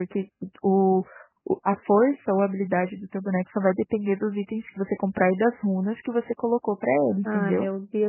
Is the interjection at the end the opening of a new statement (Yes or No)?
Yes